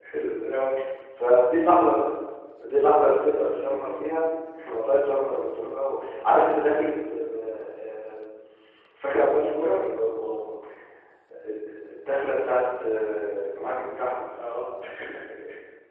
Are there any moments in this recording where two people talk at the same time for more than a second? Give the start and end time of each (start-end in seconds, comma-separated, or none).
none